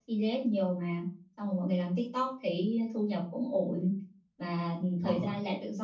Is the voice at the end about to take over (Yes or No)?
No